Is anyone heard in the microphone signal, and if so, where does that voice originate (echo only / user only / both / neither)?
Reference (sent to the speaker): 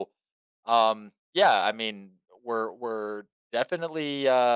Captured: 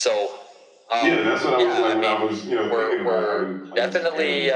both